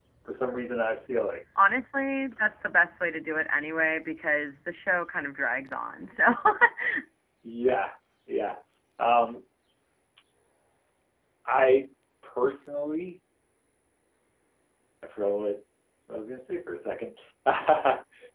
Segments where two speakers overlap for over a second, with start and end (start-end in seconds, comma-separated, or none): none